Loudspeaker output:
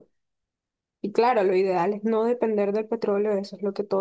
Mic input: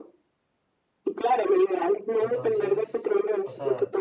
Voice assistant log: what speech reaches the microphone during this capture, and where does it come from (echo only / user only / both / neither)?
both